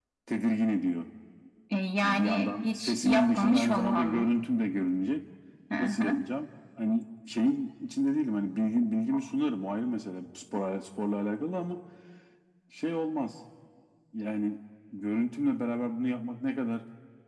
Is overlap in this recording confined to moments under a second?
No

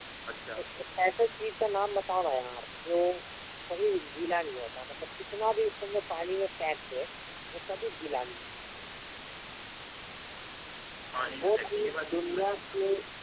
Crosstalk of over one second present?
Yes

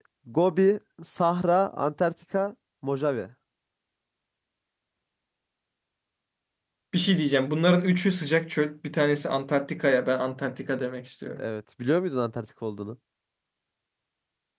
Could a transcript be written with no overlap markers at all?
Yes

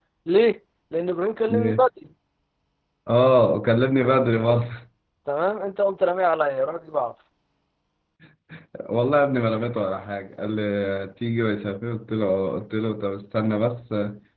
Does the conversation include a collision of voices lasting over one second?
No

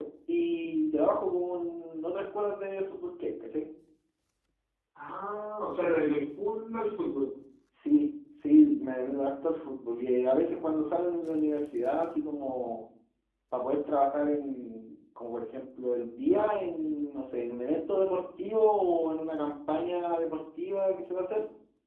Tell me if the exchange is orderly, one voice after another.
Yes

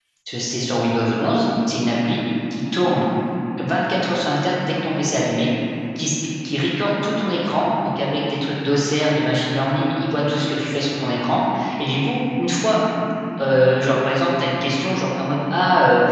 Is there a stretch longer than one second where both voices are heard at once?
No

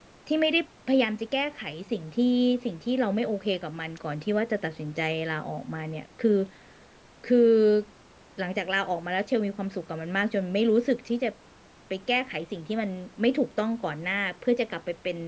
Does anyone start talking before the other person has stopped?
No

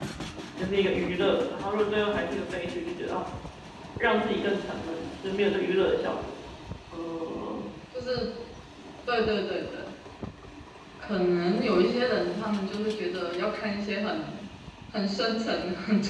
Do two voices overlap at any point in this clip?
No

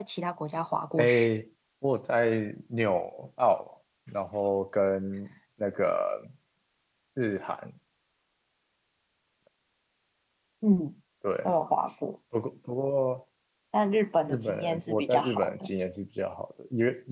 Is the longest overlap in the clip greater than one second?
Yes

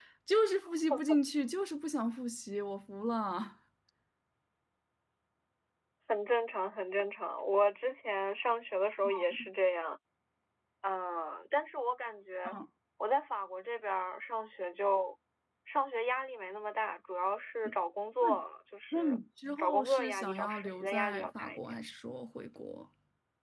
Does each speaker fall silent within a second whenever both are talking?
No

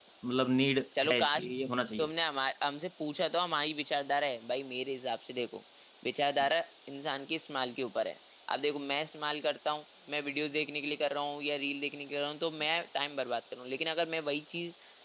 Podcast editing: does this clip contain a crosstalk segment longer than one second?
No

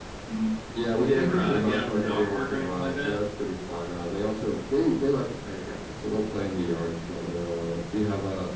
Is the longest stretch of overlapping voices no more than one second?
No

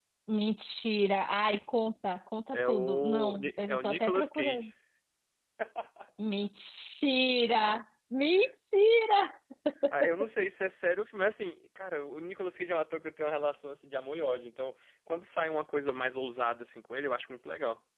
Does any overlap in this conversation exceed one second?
Yes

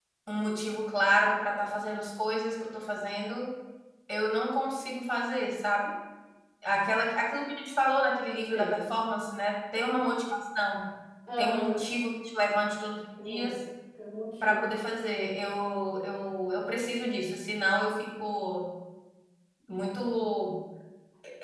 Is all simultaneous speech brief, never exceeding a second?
Yes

